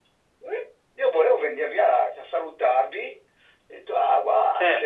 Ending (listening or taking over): listening